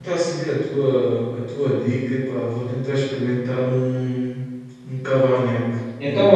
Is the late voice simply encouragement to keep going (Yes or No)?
No